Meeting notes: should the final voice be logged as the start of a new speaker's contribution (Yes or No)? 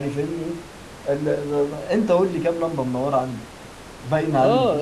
Yes